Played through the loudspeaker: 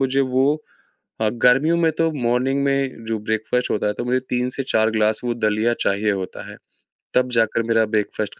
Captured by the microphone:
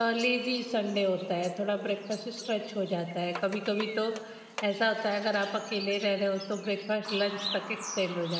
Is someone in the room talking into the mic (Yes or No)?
Yes